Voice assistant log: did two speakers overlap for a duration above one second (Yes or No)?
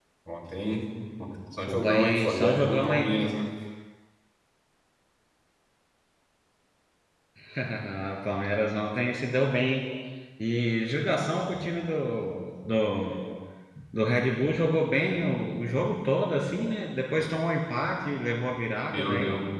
Yes